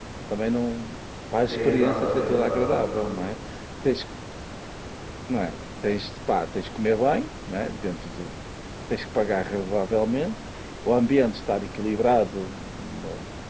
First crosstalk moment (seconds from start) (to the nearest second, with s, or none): 1 s